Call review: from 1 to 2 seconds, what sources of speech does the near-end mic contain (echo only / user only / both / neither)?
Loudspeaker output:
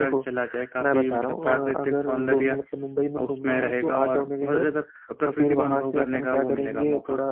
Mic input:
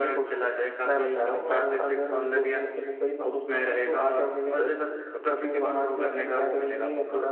echo only